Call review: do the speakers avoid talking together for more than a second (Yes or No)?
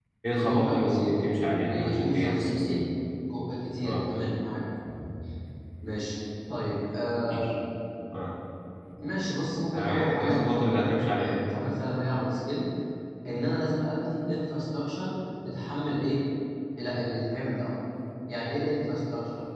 No